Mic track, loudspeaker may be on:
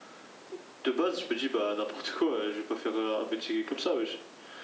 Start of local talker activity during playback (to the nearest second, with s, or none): none